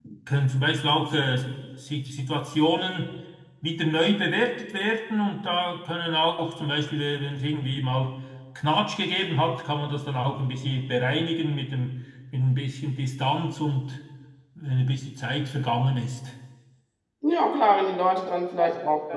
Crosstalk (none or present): none